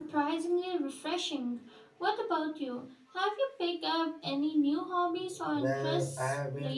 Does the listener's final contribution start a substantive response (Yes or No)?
Yes